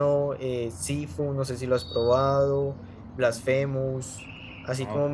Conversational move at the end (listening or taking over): listening